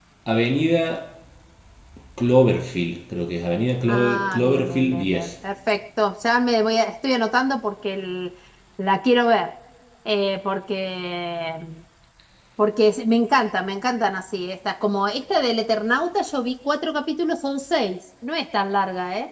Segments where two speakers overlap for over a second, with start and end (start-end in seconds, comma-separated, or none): 3.9-5.3